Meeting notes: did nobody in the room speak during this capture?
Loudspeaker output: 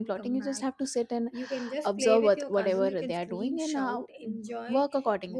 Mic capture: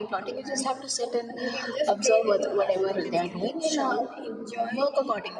Yes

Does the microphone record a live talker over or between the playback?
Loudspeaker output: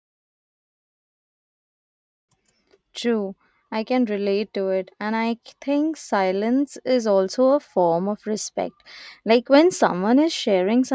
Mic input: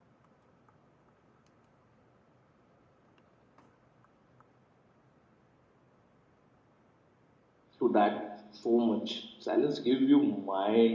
Yes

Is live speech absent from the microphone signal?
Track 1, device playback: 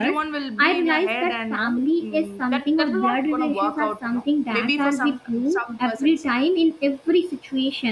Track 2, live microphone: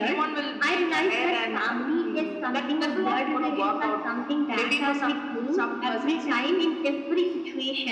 Yes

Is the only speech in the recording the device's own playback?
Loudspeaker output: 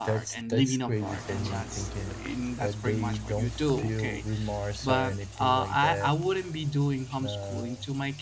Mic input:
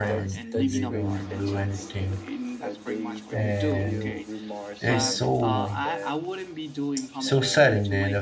No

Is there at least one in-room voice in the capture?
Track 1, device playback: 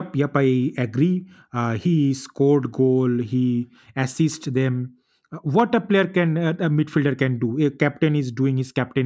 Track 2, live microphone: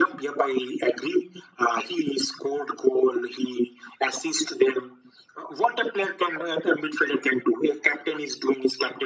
No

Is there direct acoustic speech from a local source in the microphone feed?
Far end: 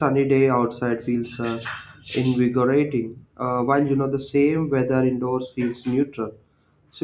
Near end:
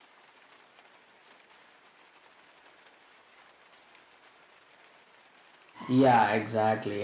Yes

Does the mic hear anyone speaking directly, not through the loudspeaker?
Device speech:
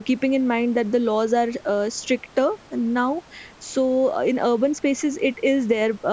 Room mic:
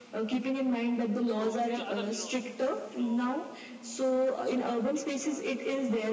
Yes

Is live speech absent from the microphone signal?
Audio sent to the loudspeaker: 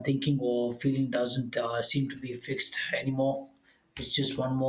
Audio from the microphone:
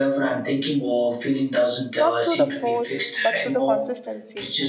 No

